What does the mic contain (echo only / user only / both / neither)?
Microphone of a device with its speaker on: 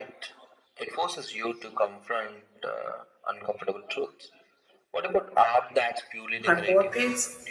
both